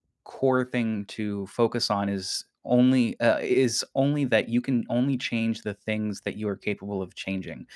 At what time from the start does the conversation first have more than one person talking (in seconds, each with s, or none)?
none